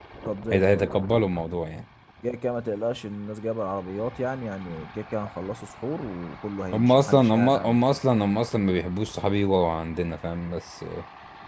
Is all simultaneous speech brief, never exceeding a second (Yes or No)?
No